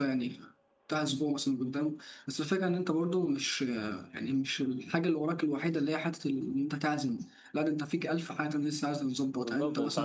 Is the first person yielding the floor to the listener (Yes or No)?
Yes